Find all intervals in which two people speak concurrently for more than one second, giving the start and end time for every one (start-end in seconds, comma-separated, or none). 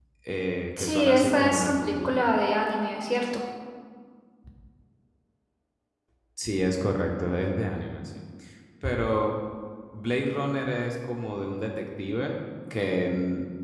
0.8-2.1